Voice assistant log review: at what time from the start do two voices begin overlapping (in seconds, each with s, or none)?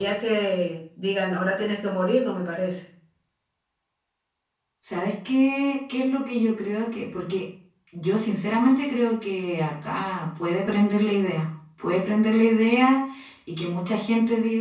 none